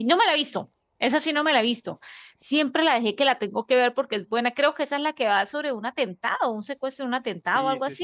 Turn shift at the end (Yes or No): Yes